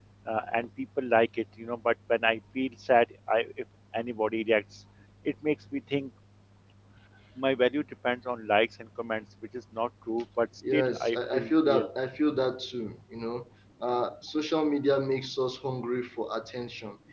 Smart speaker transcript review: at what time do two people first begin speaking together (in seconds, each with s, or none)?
10.6 s